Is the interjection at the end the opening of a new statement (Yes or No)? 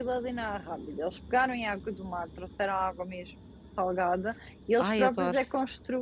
No